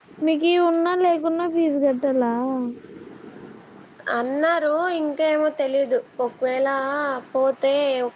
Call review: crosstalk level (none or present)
none